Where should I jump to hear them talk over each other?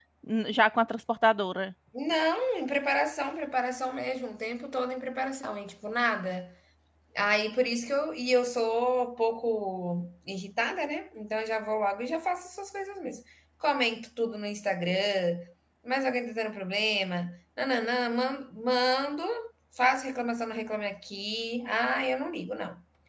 none

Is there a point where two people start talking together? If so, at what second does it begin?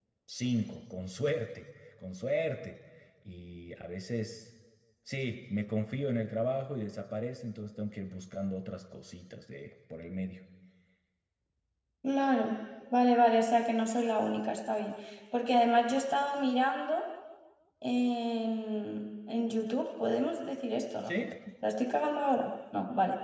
none

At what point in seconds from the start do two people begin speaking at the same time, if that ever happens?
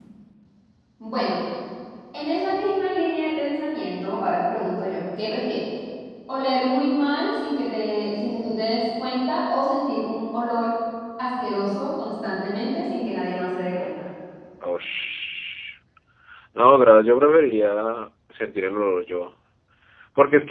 none

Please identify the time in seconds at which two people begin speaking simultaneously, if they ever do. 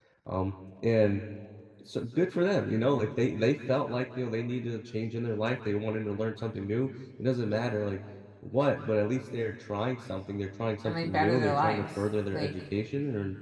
10.8 s

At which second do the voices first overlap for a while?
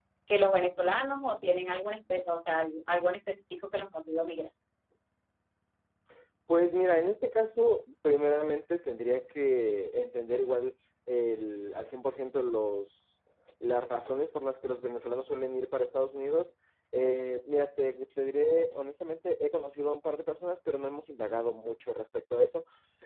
none

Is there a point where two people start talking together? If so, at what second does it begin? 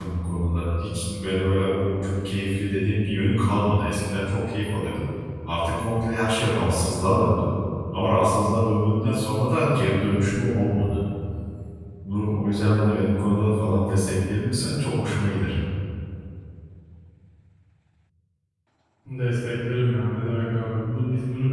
none

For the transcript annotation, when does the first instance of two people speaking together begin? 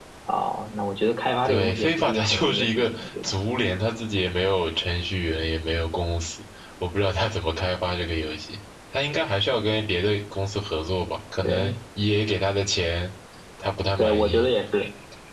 1.4 s

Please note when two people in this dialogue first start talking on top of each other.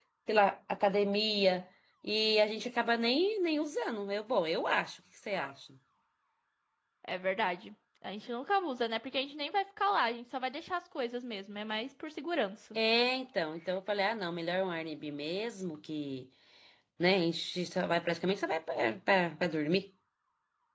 none

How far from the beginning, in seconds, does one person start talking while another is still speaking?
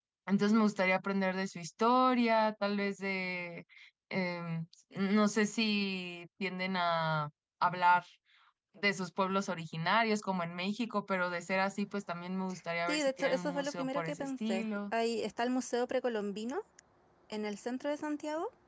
12.9 s

